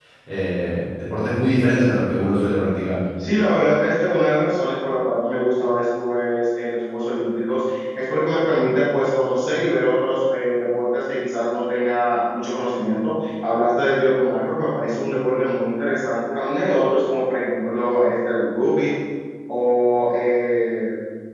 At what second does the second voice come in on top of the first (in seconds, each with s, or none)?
none